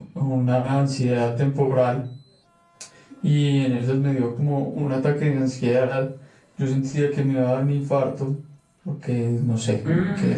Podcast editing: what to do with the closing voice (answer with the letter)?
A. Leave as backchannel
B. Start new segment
A